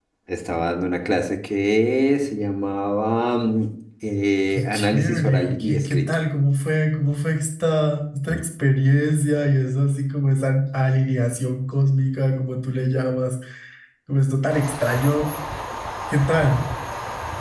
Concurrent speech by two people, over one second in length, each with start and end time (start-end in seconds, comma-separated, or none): 4.6-6.0